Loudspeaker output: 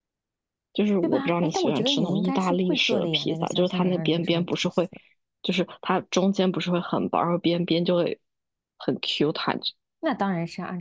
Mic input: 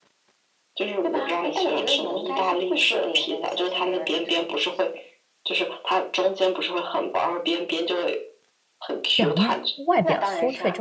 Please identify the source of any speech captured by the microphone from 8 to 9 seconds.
echo only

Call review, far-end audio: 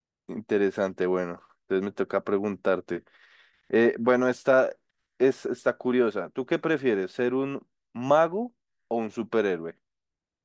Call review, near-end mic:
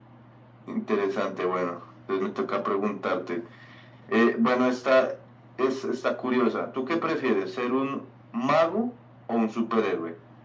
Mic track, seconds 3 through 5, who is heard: echo only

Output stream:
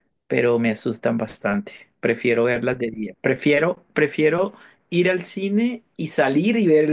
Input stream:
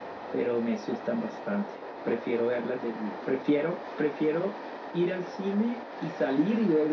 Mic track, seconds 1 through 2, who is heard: echo only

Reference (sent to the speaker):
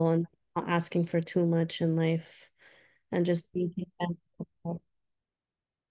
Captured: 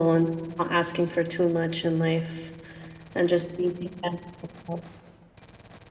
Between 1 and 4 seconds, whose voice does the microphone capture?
echo only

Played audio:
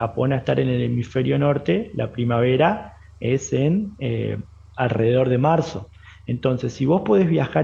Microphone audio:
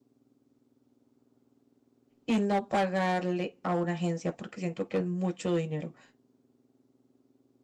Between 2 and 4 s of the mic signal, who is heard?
user only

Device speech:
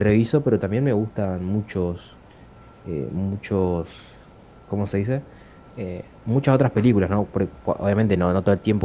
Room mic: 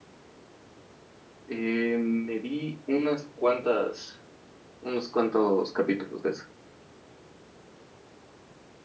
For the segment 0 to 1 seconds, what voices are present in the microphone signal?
neither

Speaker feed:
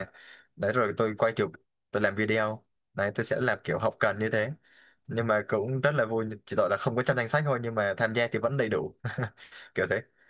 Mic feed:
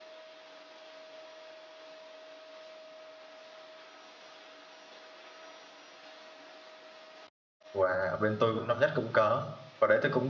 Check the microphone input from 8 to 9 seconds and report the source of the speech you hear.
user only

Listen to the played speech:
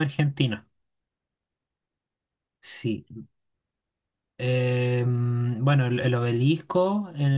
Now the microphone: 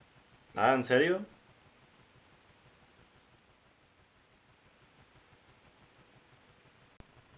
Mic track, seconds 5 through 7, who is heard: neither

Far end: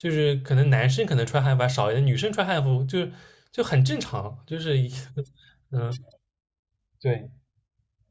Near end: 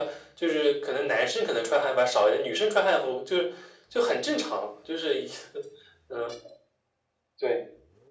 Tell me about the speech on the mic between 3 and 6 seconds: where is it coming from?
echo only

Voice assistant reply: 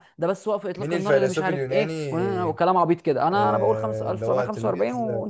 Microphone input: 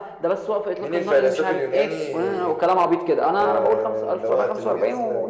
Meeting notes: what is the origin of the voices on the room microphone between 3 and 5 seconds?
echo only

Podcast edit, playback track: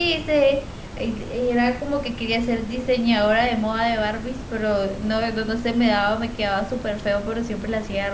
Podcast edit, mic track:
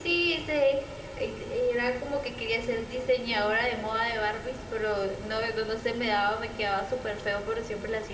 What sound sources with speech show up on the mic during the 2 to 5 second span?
echo only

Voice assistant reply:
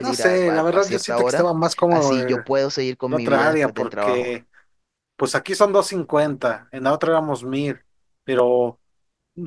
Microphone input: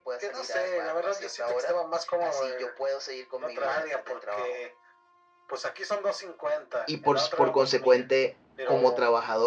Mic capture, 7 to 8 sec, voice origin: both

